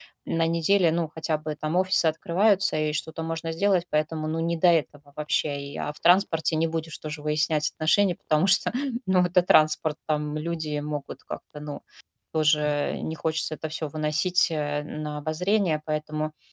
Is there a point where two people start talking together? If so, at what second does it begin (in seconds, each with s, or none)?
none